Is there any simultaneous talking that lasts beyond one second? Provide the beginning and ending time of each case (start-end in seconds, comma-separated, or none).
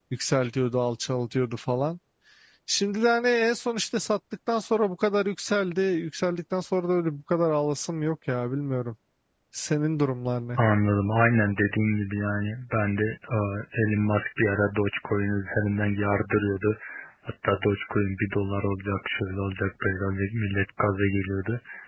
none